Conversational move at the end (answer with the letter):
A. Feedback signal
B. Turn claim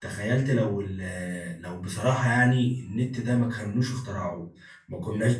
A